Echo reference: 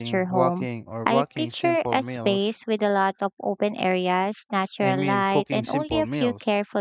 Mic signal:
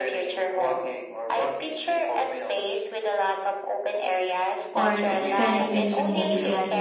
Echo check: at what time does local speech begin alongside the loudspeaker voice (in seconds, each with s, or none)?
4.7 s